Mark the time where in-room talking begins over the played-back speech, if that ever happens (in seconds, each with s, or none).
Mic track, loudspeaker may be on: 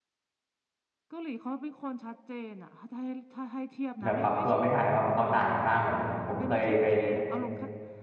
4.0 s